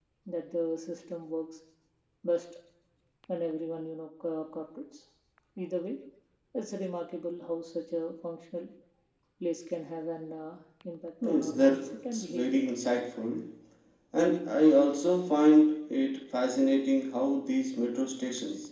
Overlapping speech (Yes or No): Yes